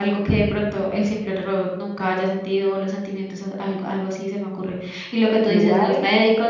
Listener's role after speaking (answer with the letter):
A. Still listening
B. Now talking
A